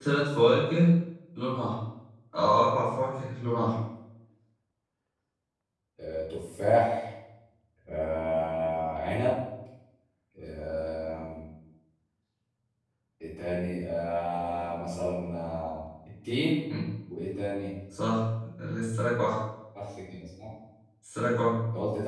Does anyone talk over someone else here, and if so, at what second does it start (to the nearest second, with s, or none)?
none